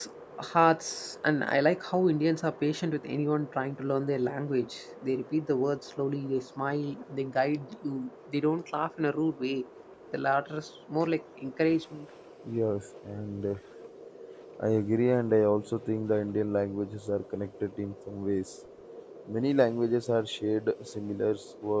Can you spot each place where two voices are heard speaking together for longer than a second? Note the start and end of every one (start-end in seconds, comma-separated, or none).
none